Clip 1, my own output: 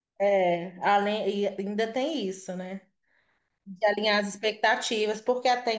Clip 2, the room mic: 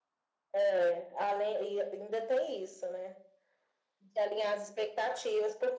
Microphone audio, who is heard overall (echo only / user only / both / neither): echo only